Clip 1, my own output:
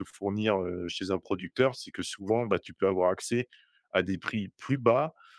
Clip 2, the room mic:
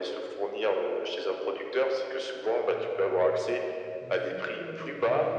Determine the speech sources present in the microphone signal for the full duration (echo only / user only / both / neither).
both